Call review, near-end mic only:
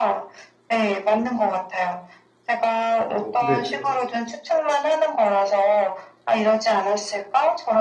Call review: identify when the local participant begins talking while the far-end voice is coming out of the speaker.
3.2 s

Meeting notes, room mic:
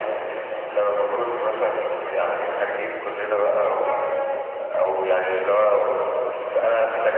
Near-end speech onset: none

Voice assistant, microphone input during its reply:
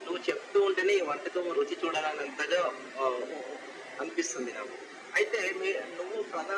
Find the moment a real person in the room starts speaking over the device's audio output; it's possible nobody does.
none

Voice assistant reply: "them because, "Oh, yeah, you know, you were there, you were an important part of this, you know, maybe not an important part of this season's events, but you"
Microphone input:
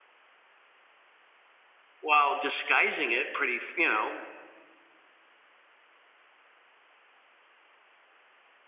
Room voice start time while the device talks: 2.0 s

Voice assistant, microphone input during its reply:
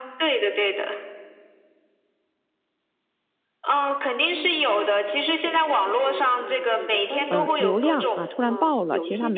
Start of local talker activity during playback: 7.3 s

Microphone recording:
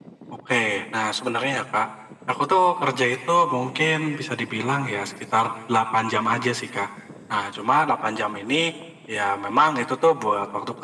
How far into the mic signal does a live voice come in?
none

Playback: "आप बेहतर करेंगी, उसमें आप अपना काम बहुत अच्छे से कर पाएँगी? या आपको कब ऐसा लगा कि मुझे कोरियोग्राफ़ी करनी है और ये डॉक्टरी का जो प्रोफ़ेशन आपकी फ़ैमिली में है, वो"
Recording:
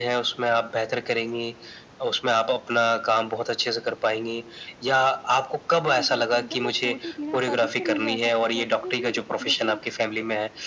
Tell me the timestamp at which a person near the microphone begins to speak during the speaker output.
5.8 s

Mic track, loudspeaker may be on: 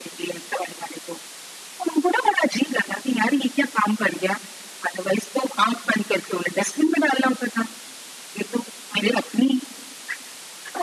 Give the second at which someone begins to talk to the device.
none

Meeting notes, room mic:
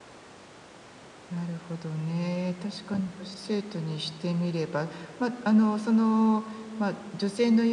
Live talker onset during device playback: 1.3 s

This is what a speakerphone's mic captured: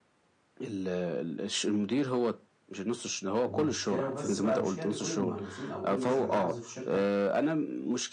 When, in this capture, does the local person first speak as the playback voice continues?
3.4 s

